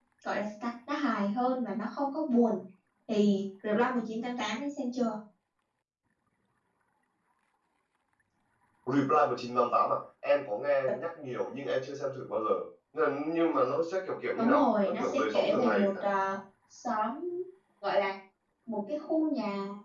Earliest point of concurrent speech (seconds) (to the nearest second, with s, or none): 14 s